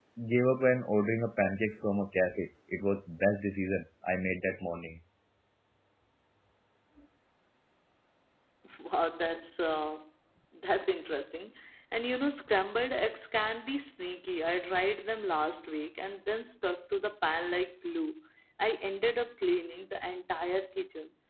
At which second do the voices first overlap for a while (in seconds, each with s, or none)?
none